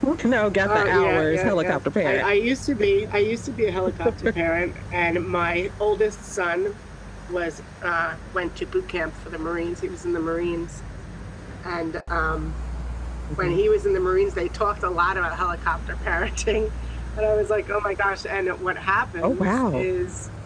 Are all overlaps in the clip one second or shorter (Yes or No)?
No